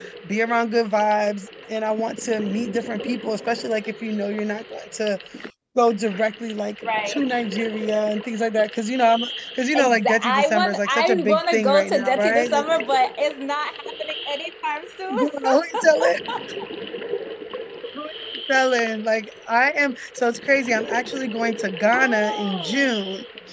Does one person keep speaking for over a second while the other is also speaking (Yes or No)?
Yes